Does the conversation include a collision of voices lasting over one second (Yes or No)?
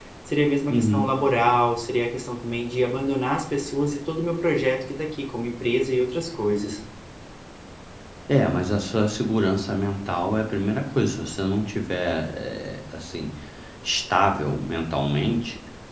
No